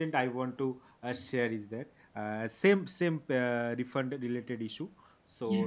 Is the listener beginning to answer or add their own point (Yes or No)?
No